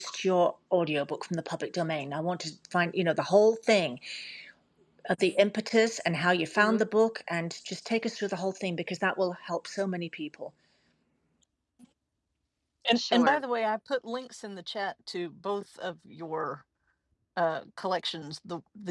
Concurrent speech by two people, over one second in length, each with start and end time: none

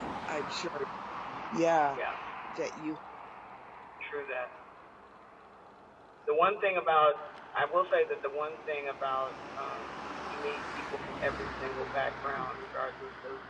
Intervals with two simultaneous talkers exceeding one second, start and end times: none

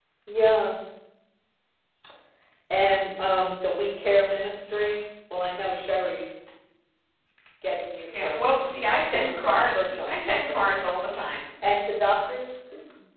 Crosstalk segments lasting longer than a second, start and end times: 9.1-10.7

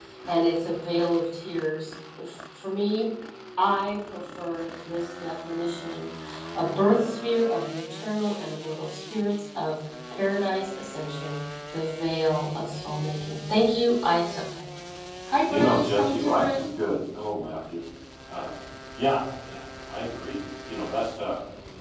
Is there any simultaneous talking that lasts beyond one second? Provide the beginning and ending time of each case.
15.5-16.7

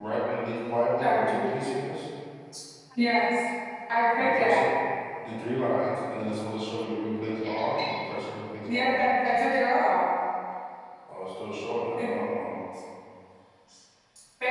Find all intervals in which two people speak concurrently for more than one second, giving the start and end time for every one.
none

